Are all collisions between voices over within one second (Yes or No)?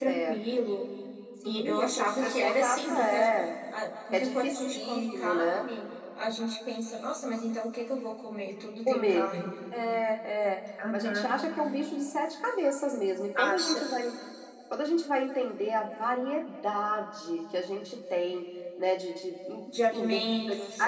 No